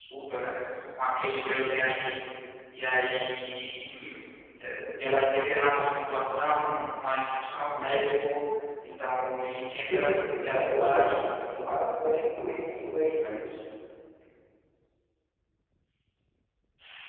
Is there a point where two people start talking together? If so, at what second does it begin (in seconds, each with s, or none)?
9.9 s